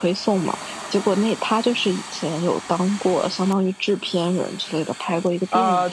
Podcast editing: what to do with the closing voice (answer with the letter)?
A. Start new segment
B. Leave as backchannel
A